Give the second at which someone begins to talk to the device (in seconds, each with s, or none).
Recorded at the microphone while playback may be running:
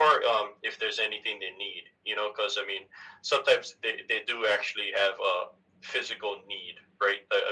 none